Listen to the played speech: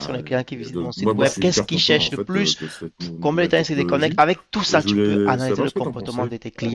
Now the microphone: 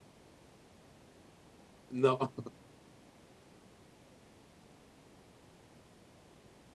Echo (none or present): none